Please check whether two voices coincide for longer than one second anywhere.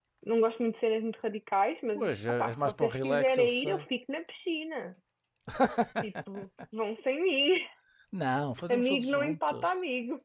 Yes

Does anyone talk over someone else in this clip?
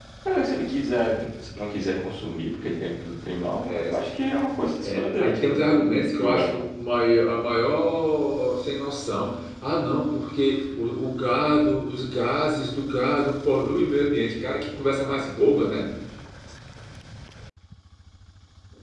Yes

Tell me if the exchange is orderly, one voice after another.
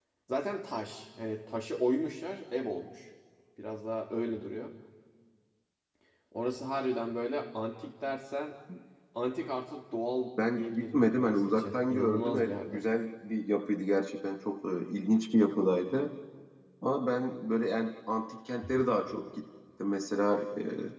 No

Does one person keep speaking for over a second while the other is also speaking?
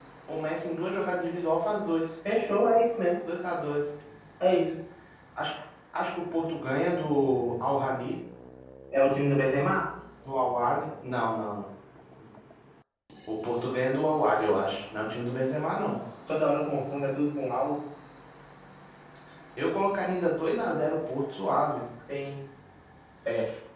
No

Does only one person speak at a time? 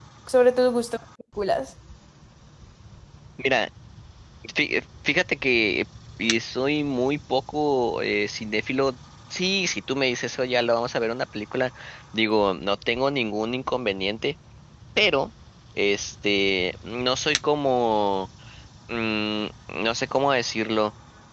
Yes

